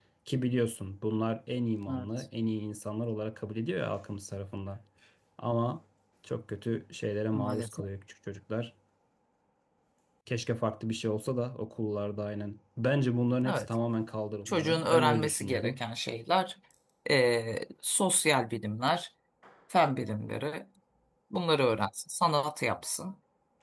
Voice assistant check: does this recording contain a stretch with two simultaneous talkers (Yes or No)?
Yes